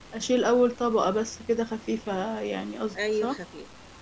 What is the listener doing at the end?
taking over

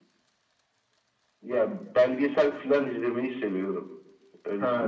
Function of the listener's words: taking over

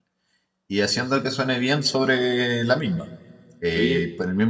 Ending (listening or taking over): listening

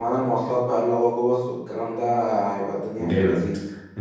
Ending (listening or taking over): taking over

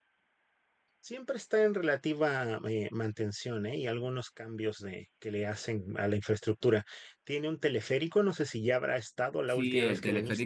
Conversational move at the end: taking over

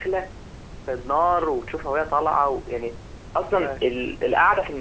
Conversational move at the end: listening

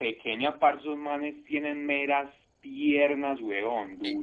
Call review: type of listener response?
taking over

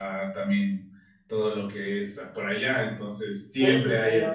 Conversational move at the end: listening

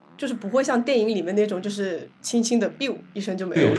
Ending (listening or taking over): taking over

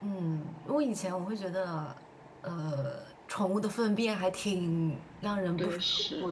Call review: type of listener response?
listening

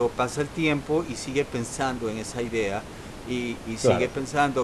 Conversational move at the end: listening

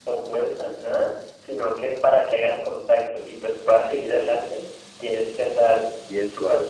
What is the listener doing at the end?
listening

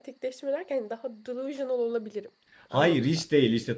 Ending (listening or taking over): taking over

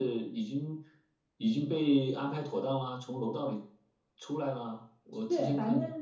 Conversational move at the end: taking over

